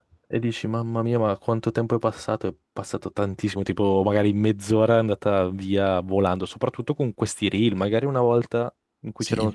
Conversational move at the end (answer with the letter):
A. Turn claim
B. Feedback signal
B